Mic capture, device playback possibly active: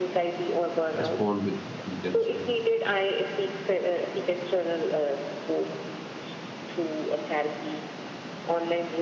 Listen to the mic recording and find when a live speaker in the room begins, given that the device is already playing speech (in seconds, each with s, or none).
0.9 s